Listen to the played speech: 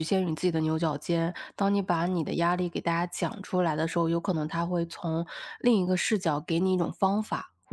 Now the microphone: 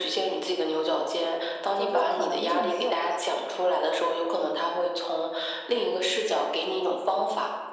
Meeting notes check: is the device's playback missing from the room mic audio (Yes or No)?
No